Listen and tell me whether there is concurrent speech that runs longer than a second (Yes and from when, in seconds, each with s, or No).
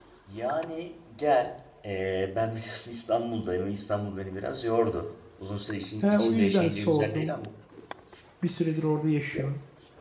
Yes, from 6.0 s